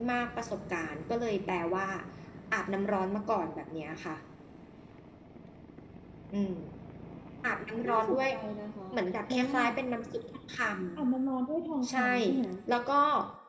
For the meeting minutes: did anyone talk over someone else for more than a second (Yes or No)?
No